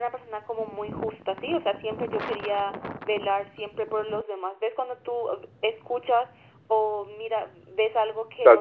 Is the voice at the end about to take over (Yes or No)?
Yes